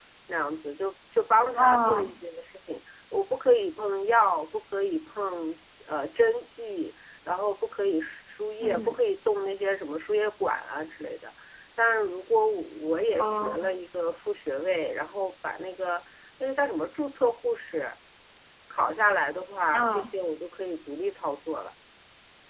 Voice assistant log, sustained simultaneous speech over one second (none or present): none